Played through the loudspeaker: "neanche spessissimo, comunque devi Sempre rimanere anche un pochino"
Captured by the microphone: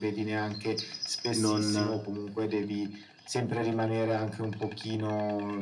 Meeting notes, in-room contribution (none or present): present